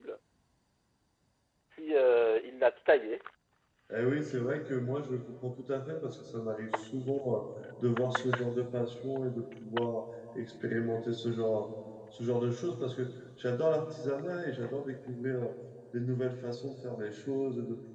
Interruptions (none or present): none